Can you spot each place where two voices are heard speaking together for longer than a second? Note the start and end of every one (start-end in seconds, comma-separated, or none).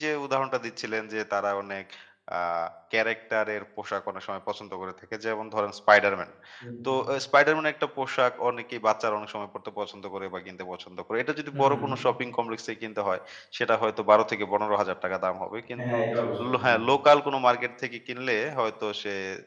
none